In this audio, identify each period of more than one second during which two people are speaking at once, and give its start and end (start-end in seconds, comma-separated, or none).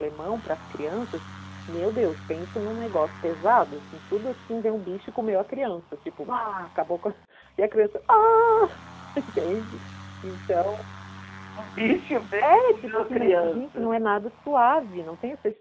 12.4-13.9